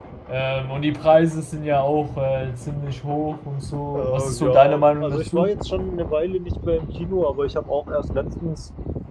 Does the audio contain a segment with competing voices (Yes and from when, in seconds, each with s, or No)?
Yes, from 3.9 s